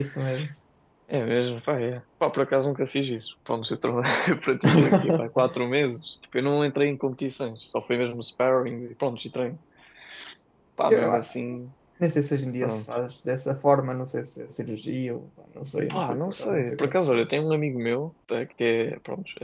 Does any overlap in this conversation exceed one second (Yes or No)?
Yes